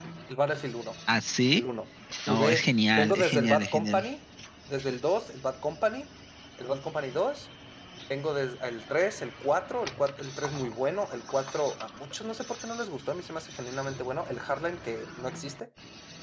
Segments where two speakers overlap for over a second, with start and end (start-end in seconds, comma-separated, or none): 2.3-4.0